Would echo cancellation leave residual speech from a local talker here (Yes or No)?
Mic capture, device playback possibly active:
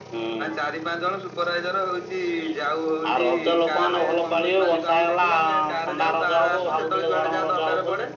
No